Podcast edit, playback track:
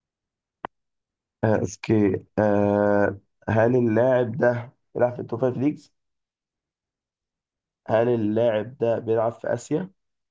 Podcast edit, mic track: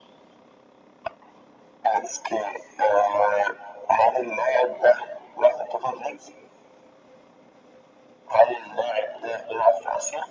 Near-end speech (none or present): none